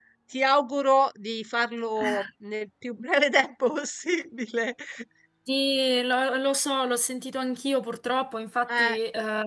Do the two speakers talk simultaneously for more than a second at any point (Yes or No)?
No